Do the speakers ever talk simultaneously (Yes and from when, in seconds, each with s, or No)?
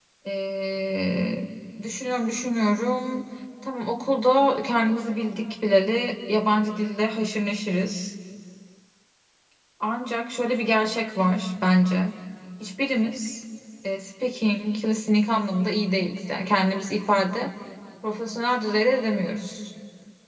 No